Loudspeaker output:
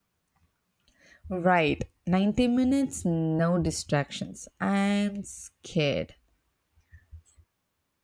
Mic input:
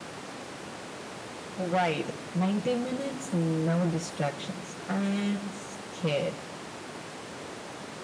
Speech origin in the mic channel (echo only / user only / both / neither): echo only